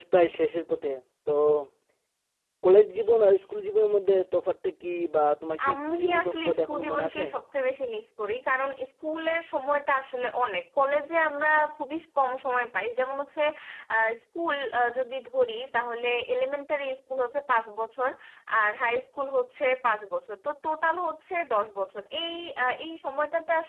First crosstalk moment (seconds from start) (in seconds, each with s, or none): 5.6 s